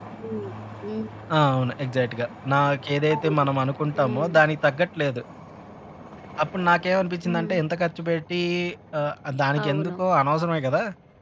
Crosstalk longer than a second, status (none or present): none